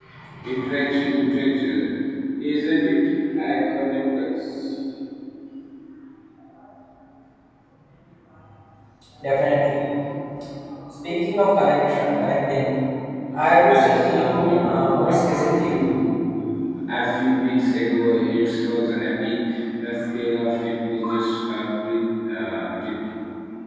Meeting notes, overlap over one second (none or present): present